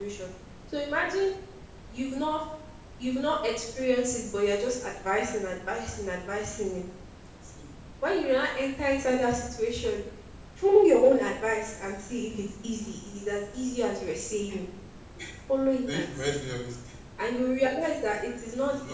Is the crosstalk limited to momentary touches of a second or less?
Yes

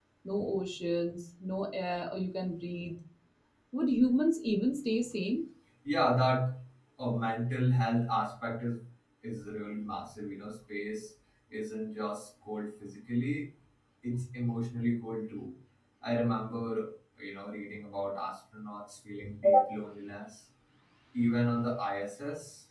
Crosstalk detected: No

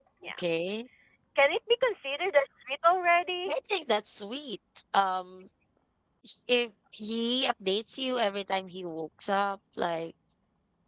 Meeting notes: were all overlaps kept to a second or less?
Yes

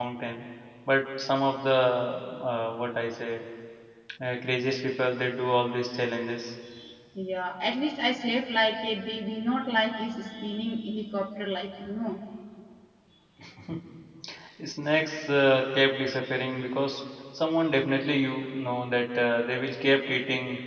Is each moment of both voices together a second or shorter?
Yes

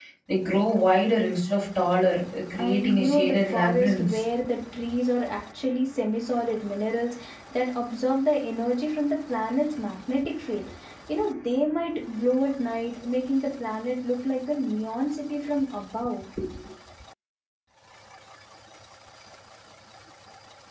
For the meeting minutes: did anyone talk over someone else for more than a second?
Yes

